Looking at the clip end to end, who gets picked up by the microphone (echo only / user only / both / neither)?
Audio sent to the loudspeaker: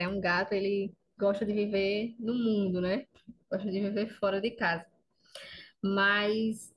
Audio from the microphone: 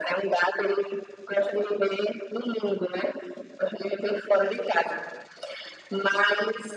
echo only